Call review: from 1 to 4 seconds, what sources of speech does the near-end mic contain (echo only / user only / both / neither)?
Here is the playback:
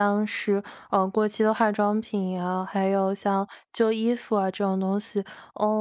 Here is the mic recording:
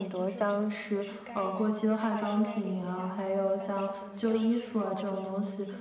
both